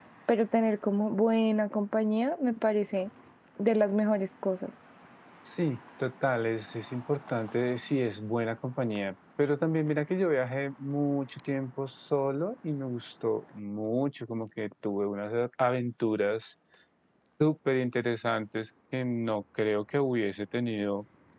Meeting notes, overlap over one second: none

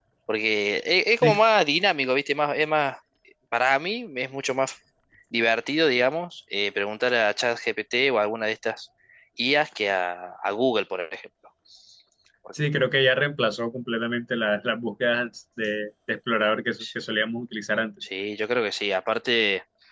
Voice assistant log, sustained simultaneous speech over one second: none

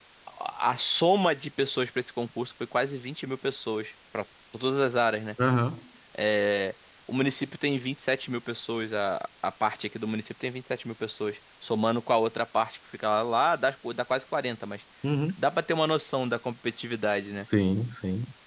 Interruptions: none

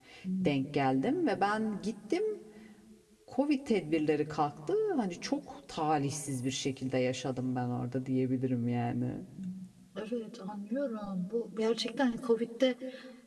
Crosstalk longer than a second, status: none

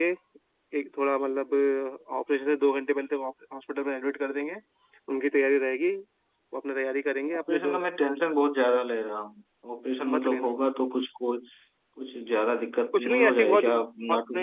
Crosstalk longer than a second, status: present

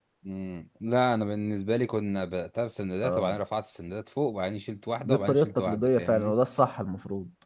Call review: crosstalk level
present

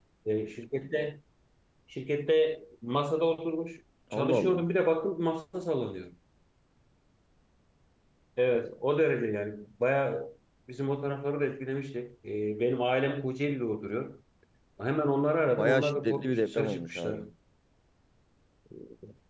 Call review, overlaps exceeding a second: present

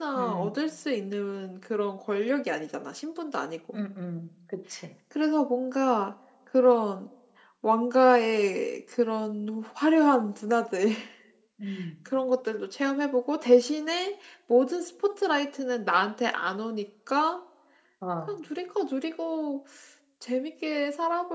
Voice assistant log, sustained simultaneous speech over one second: none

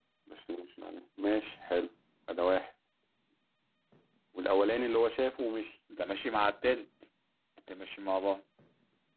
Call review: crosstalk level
none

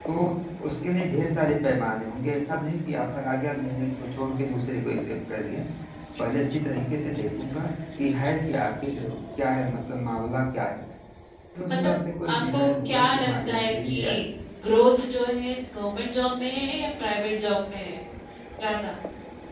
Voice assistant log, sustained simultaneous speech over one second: present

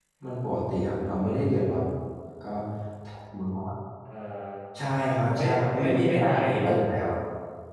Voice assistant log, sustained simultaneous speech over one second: present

